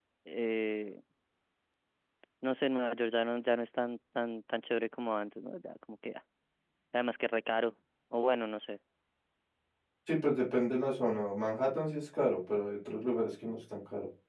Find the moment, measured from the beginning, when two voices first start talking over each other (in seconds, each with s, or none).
none